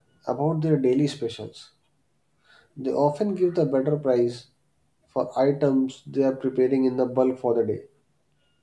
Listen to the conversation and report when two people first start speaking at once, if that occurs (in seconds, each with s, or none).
none